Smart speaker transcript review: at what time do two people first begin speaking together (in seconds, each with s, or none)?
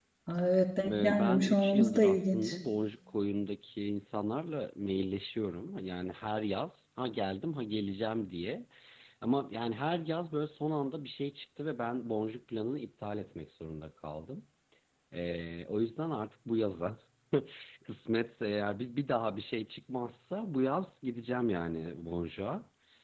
0.8 s